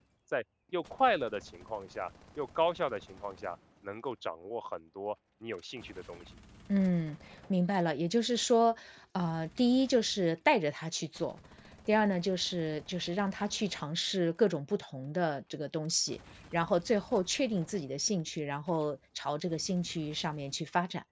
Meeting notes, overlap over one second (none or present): none